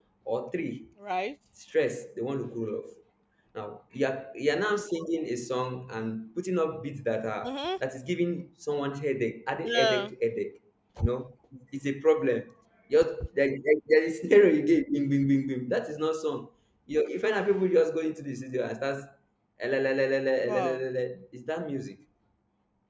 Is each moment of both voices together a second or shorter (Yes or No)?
Yes